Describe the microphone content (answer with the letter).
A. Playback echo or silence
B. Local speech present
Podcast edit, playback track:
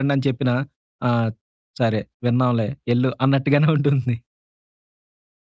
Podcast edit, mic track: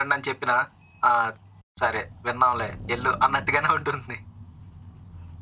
A